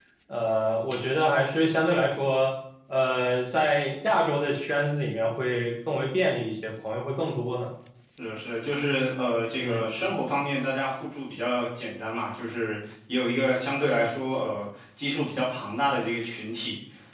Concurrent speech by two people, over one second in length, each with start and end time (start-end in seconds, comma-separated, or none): none